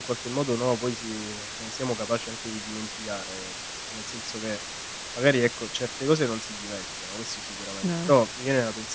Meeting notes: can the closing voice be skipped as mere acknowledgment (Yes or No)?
Yes